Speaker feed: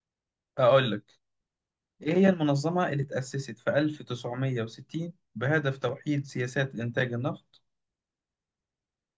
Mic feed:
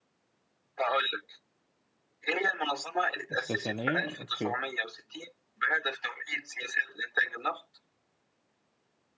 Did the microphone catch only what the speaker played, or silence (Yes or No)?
No